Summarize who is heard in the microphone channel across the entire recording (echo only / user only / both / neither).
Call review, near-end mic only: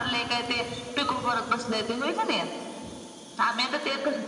echo only